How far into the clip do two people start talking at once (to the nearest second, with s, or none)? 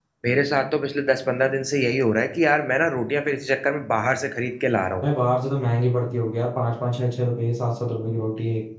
none